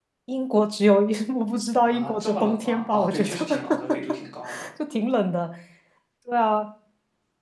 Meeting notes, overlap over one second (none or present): present